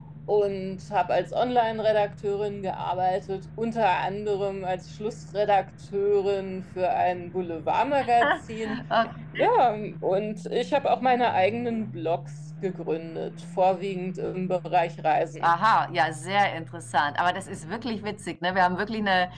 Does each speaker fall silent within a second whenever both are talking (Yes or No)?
Yes